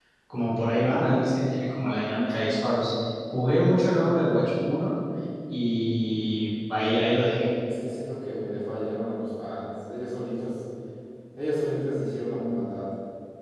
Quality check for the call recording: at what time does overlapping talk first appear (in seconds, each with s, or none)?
none